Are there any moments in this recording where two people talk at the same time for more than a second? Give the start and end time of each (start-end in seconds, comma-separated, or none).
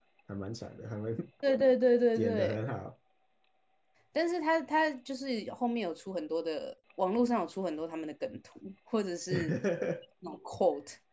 none